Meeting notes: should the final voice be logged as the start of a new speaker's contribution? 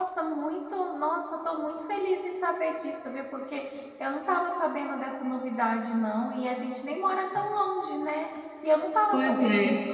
No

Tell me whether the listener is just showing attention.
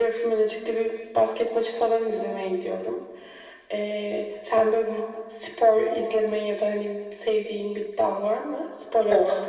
No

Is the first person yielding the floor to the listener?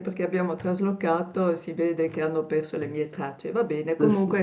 No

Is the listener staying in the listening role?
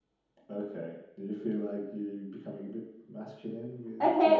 No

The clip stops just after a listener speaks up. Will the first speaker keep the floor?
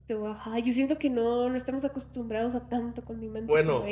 No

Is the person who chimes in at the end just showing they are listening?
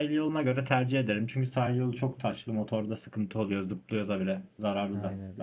No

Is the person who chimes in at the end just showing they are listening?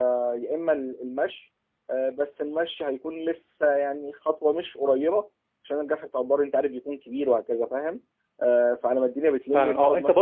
No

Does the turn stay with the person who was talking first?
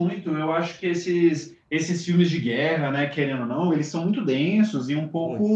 Yes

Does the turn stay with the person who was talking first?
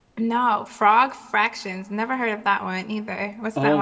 No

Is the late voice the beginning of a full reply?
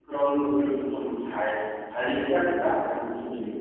Yes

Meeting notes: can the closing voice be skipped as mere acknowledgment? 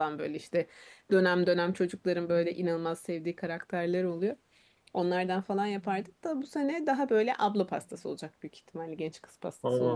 No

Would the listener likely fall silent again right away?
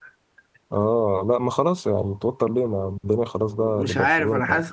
No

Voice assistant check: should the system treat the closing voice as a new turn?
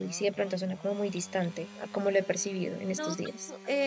Yes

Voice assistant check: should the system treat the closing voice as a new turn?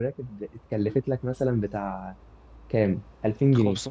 Yes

